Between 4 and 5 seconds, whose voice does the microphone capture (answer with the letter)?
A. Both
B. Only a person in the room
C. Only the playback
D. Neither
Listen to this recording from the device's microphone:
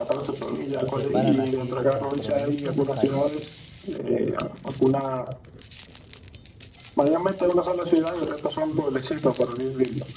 C